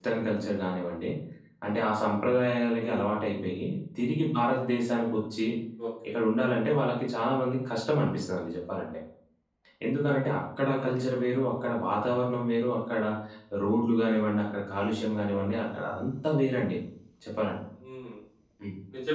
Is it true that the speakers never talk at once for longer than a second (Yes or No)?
Yes